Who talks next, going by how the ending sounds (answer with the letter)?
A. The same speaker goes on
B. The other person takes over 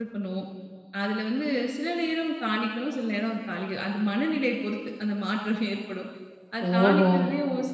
A